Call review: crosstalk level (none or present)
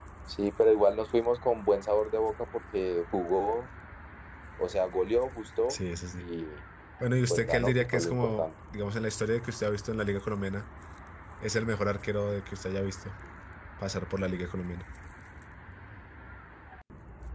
present